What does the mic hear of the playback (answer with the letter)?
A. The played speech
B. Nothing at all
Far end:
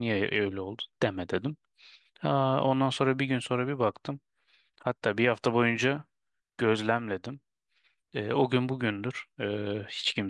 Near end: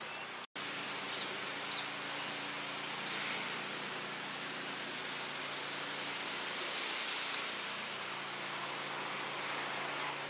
B